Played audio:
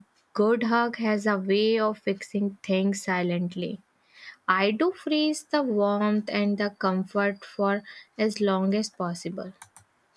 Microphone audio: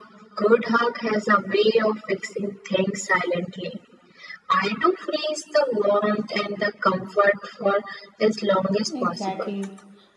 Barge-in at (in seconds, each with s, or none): 8.9 s